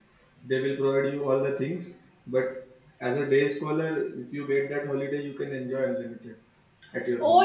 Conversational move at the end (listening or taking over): taking over